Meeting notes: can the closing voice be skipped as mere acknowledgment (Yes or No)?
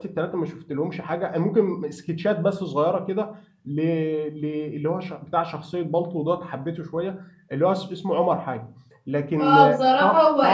No